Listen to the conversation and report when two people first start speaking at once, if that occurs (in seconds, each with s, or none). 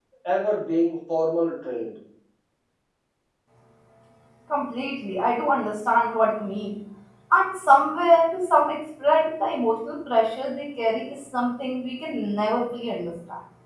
none